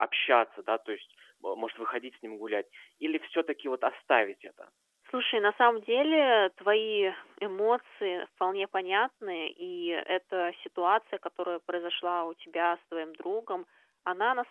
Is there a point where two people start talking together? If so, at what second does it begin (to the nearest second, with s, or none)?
none